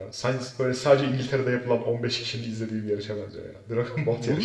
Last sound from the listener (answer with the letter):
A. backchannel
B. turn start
B